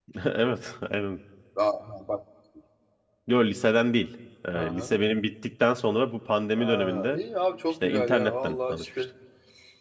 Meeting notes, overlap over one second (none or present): present